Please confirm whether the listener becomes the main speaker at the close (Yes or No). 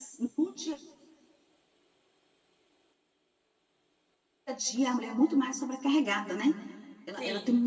No